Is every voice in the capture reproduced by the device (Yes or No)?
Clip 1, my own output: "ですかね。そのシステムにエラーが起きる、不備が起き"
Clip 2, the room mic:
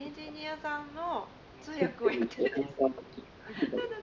No